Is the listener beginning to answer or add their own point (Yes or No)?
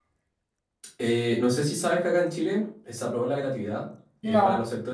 No